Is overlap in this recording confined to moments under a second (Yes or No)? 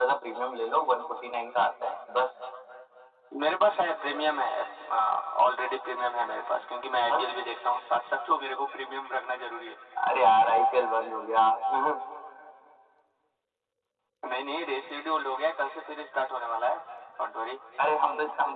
Yes